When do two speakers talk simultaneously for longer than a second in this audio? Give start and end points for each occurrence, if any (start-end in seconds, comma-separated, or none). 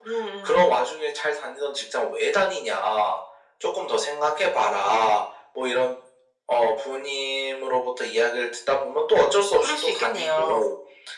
9.2-10.6